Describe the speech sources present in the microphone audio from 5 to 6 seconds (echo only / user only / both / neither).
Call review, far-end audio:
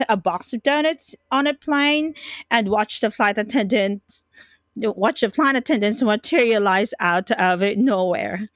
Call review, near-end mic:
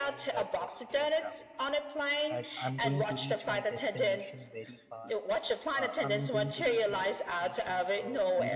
both